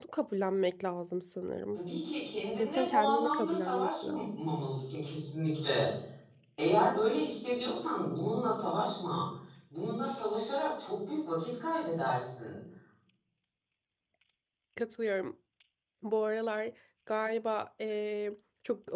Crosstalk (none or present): present